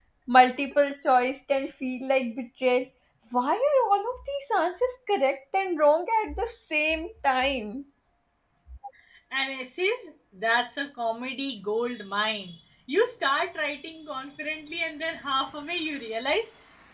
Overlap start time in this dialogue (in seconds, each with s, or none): none